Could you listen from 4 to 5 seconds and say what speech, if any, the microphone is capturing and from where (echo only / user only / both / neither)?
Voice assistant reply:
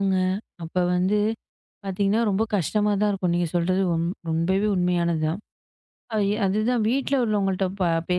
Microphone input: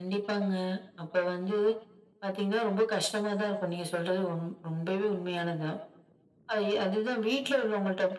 echo only